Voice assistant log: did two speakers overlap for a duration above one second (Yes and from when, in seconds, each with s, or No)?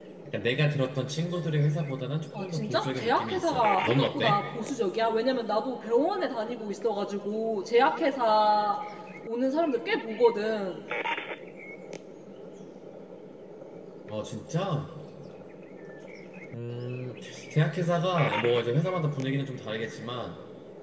Yes, from 2.3 s